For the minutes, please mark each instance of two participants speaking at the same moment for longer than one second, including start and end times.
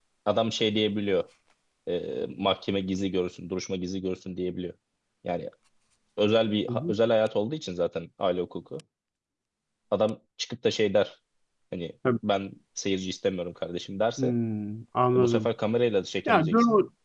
none

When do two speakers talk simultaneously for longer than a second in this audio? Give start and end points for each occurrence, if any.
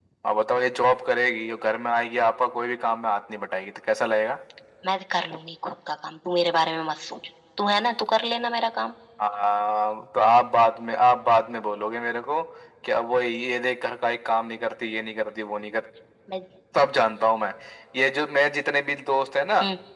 none

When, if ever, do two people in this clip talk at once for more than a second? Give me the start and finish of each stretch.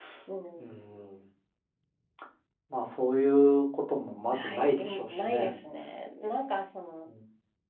4.3-5.6

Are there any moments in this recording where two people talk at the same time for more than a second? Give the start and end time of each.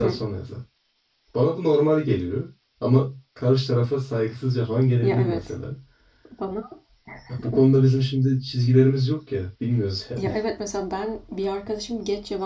none

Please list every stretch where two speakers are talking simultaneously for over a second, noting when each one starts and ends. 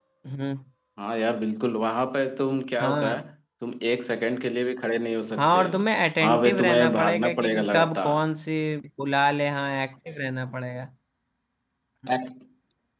6.2-8.2

